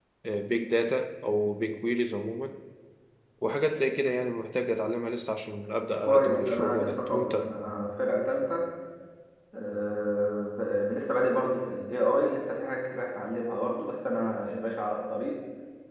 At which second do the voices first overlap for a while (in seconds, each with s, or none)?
6.0 s